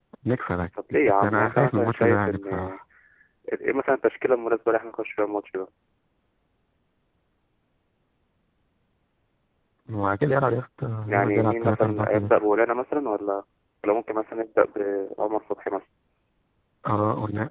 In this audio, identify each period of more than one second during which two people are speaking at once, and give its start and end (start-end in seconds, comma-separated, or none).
0.9-2.8, 11.1-12.4